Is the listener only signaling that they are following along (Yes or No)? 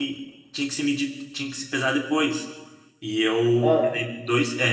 Yes